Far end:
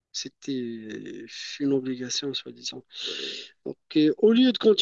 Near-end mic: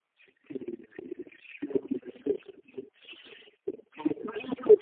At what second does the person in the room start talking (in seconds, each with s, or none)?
none